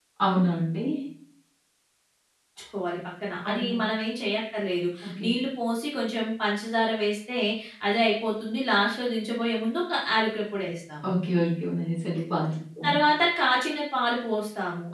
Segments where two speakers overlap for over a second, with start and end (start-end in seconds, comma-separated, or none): none